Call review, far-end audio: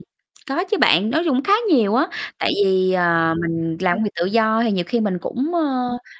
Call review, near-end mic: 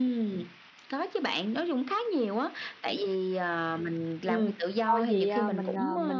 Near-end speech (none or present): present